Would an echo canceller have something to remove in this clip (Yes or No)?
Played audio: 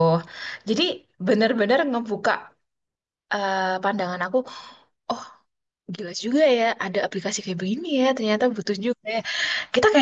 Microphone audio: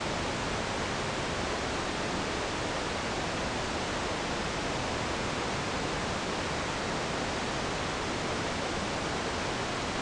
No